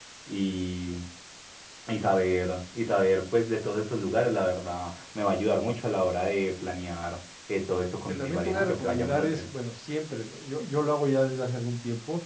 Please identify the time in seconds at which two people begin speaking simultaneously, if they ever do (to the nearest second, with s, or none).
8 s